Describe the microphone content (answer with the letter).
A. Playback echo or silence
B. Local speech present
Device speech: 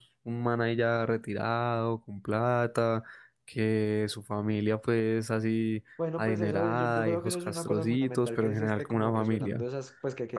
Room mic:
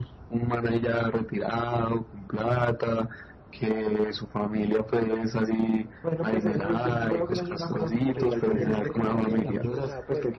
B